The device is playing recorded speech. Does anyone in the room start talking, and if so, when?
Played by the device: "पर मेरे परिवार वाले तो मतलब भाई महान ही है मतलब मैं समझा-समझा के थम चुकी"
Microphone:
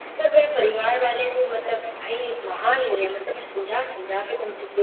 none

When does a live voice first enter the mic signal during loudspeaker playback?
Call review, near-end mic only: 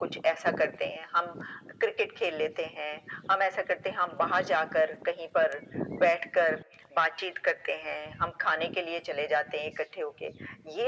none

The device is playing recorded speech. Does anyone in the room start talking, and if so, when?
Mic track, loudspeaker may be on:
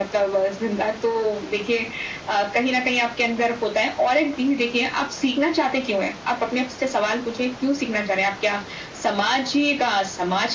none

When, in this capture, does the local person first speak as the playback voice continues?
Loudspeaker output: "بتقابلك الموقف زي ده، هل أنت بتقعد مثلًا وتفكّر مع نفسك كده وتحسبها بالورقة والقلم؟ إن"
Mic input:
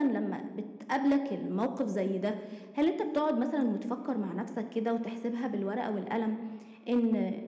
none

